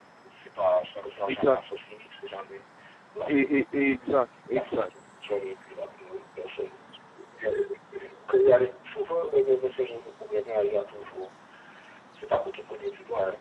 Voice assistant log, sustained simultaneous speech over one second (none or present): none